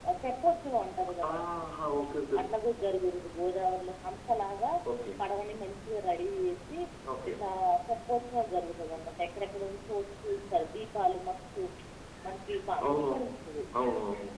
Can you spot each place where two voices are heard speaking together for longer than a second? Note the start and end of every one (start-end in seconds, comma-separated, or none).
none